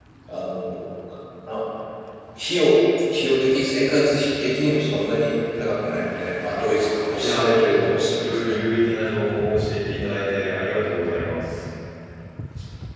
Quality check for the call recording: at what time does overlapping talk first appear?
7.2 s

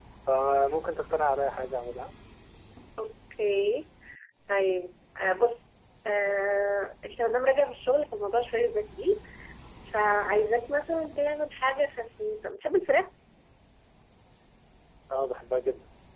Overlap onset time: none

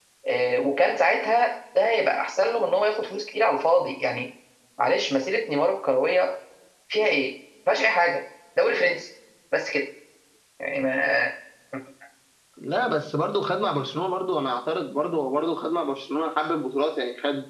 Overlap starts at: none

